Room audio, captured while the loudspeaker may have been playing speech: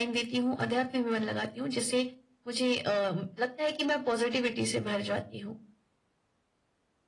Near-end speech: none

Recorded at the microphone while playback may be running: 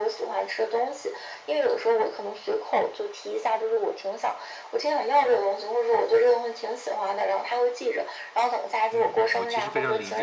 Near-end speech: present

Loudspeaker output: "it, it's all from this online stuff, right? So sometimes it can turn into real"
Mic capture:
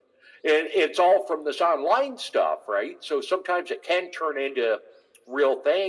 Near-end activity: none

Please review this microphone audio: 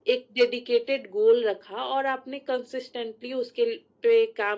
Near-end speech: none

